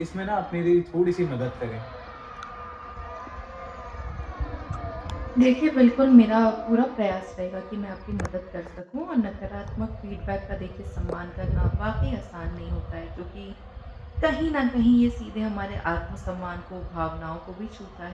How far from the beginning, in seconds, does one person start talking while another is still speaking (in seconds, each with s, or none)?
none